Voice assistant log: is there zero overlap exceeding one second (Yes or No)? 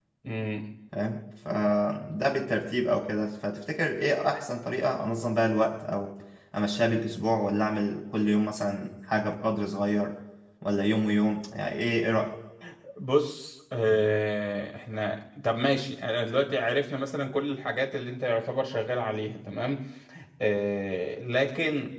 Yes